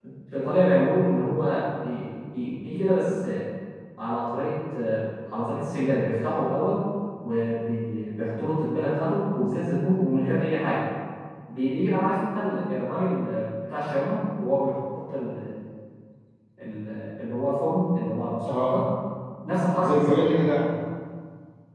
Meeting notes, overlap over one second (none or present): none